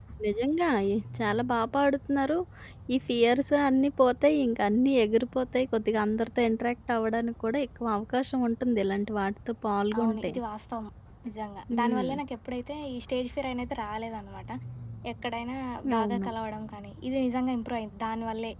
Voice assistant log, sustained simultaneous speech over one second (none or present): none